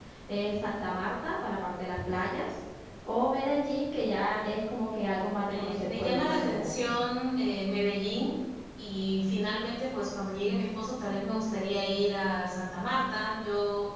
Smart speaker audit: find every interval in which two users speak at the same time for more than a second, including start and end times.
5.5-6.9

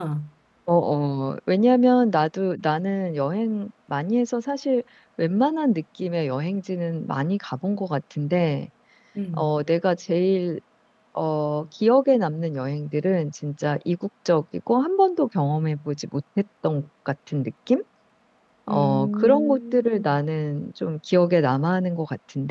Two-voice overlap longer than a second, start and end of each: 18.7-20.1

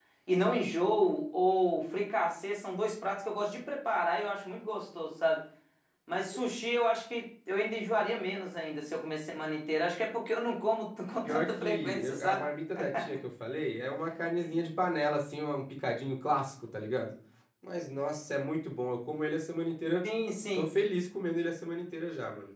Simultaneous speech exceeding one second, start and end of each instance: 11.2-12.4

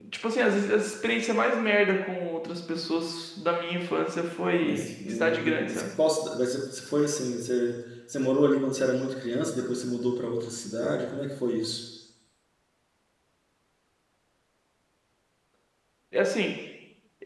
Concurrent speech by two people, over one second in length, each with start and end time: 4.6-5.8

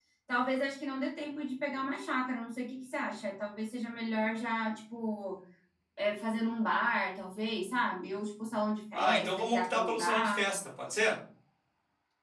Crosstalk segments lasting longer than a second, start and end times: 8.9-10.4

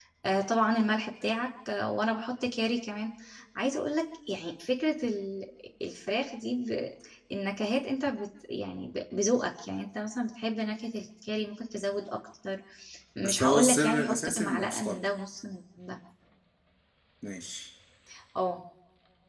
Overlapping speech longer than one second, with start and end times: 13.2-15.1

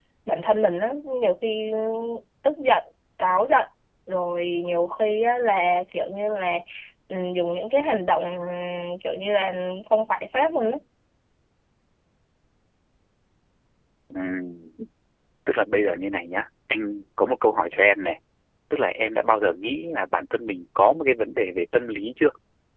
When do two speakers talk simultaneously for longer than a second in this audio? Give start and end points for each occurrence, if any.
none

